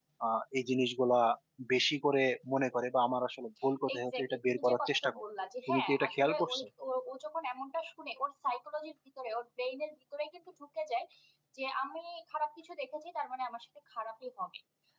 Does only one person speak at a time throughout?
No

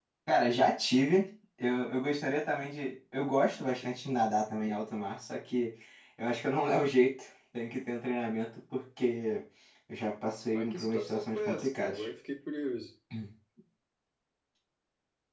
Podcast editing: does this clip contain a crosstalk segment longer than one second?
Yes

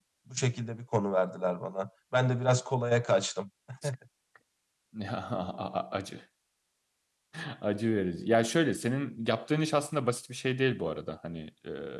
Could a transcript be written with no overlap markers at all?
Yes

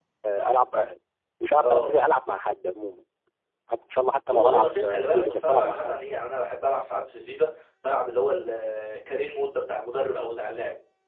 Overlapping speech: Yes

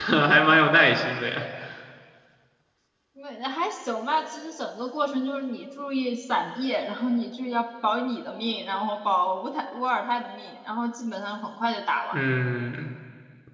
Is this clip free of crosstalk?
Yes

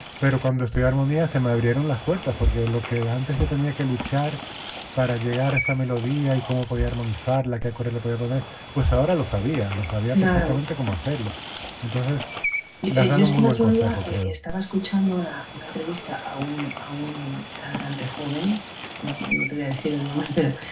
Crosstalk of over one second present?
Yes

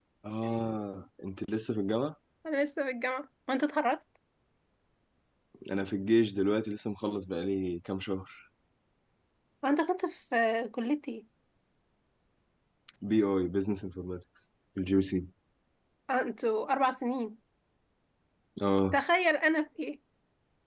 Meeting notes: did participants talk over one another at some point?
No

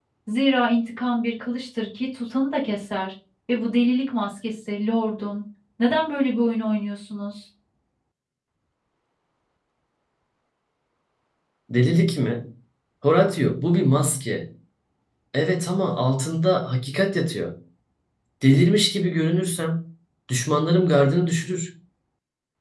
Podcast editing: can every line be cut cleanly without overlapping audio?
Yes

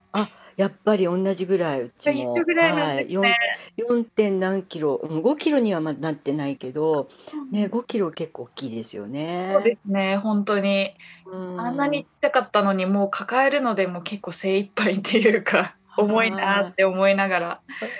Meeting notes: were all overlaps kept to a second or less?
No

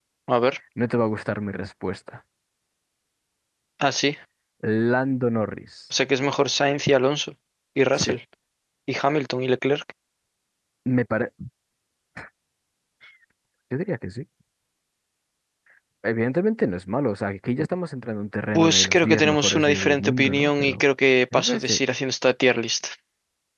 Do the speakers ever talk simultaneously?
Yes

